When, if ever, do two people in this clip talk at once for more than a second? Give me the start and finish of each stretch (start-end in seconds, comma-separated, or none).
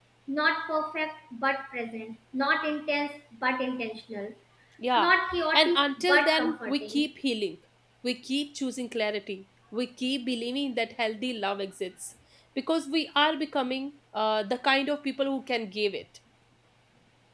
5.5-7.1